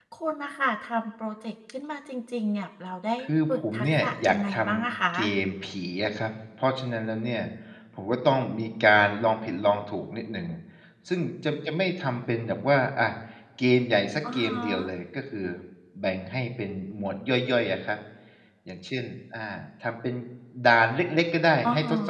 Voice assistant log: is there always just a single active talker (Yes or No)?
No